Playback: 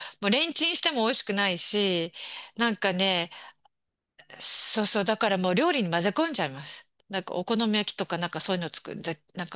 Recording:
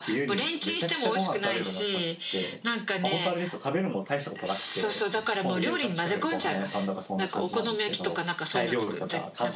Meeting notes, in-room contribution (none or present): present